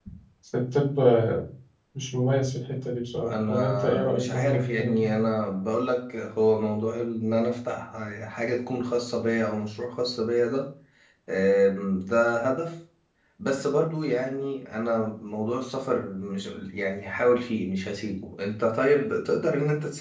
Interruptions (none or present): present